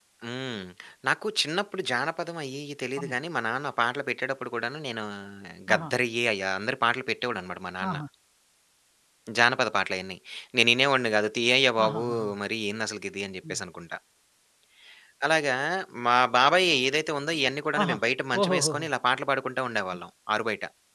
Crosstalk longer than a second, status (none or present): none